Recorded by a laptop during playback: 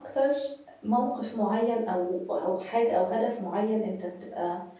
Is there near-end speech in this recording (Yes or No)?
Yes